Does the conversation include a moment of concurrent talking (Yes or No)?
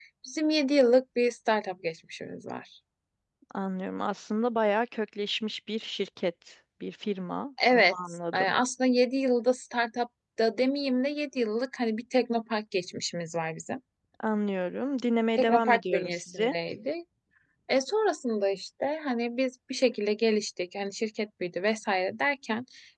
Yes